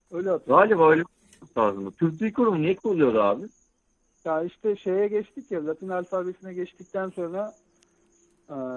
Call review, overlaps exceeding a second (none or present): none